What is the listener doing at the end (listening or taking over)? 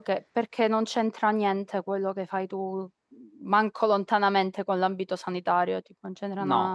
taking over